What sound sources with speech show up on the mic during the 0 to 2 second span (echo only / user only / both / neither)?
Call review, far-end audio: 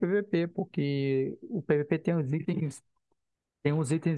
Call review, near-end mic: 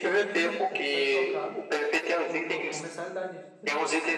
both